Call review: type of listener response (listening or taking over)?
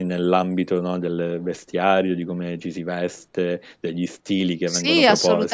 taking over